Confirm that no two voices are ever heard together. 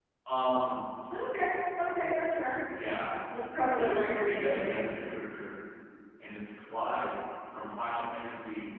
No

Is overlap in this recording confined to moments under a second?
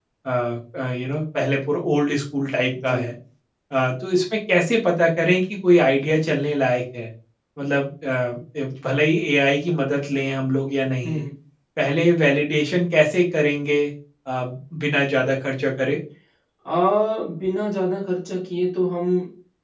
Yes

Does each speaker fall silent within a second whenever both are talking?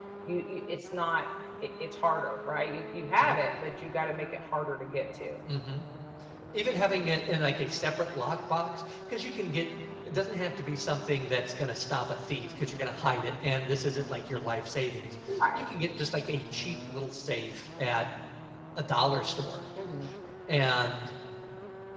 Yes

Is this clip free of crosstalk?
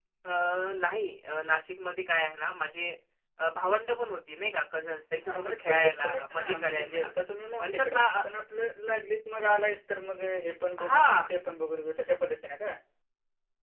No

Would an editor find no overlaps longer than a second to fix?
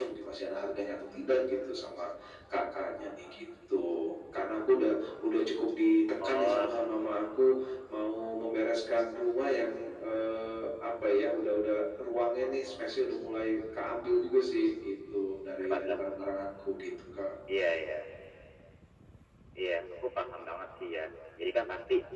Yes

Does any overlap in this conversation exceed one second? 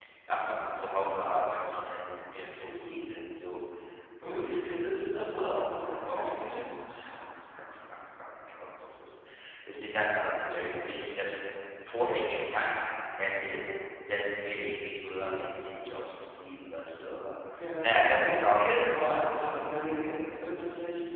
Yes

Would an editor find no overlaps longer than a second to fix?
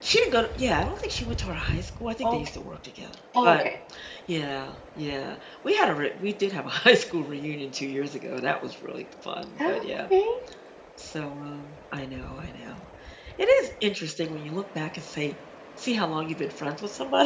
Yes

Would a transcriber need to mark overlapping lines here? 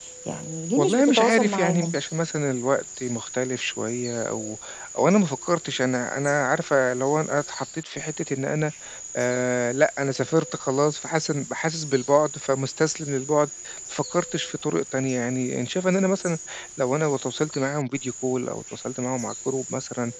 Yes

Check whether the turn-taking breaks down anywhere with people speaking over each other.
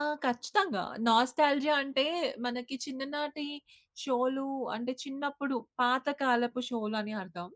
No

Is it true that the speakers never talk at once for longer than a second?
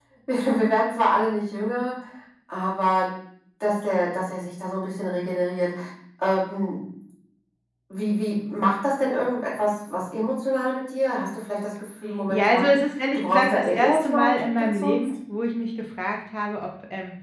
No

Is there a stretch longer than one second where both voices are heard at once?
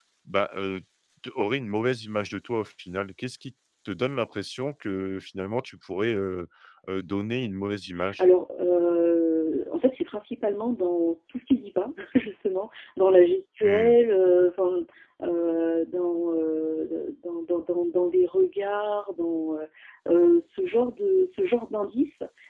No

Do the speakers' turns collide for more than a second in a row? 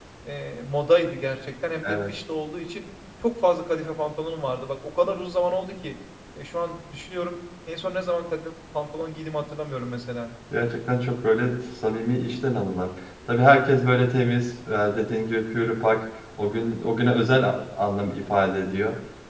No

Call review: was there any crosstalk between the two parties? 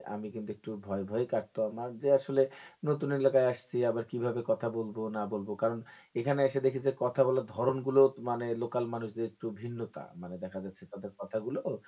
No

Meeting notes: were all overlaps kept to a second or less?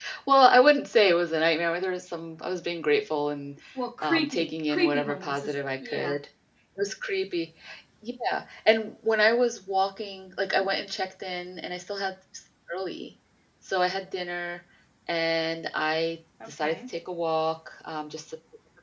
No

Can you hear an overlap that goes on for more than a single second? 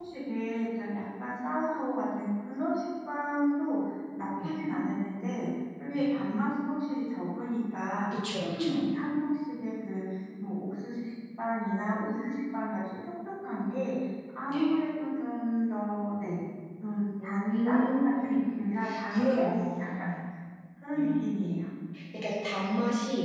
Yes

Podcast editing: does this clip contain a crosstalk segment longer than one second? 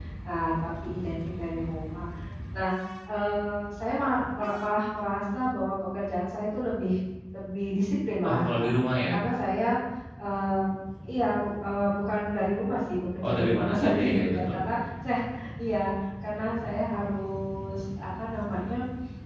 Yes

